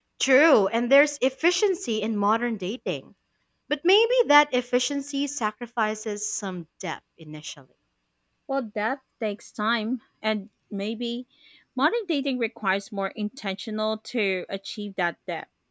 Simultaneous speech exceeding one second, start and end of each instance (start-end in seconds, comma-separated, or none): none